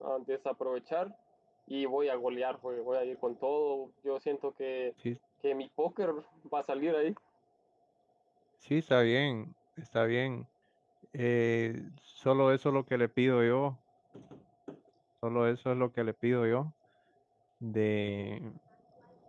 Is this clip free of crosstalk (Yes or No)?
Yes